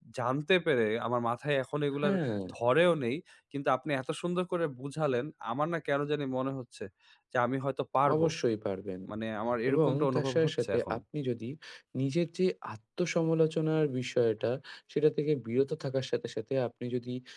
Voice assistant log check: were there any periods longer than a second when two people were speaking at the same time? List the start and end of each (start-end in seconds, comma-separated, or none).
9.7-10.9